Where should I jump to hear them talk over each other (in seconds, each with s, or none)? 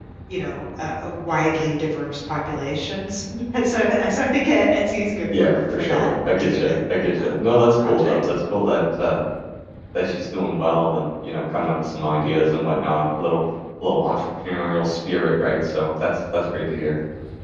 5.4 s